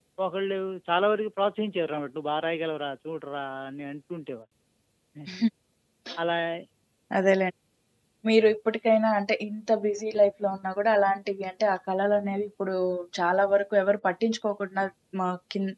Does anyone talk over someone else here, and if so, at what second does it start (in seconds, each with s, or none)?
none